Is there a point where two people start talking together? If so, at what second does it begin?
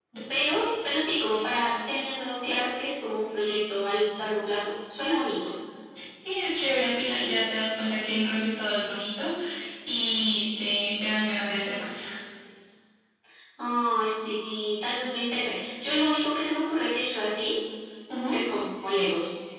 none

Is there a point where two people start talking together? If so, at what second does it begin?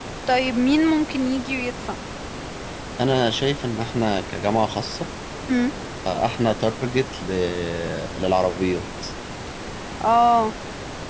none

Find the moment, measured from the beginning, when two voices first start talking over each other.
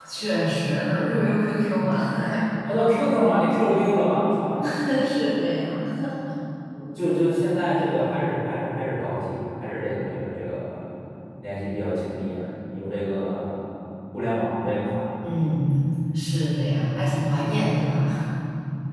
none

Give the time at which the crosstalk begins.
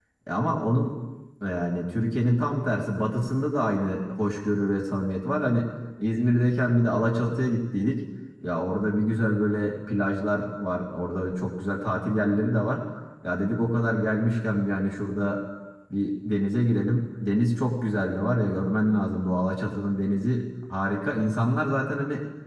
none

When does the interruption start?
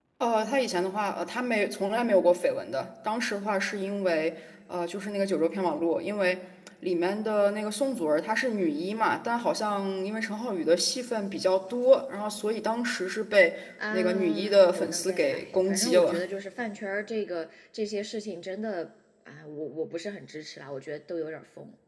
13.8 s

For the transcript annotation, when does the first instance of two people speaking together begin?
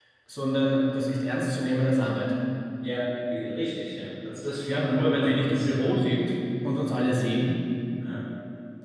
4.7 s

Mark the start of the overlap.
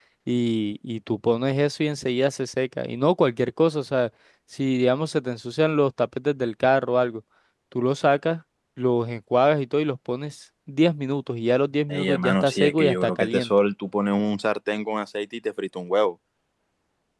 11.9 s

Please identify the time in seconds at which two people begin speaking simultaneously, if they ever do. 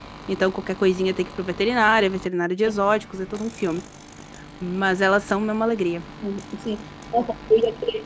none

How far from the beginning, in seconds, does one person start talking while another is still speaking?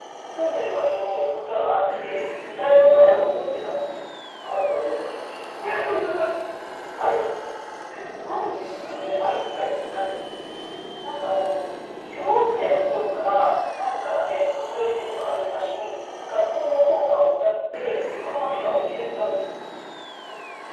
0.8 s

